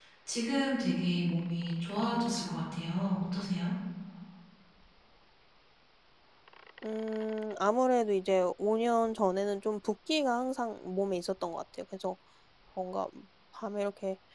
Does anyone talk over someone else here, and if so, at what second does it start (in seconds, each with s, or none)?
none